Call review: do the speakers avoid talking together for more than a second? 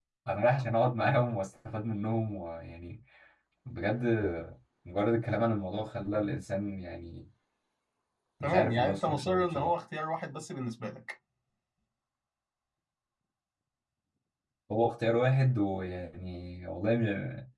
No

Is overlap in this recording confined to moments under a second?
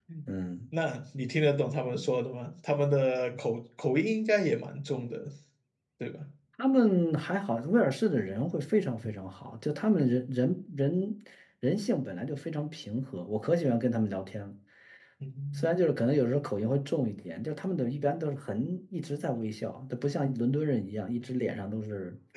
Yes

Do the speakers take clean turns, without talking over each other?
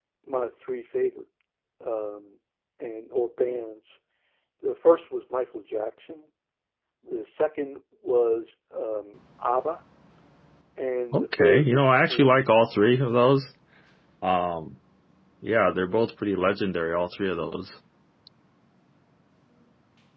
No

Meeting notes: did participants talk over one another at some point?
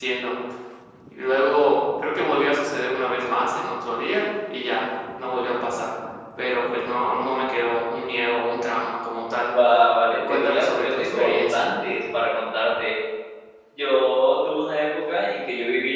Yes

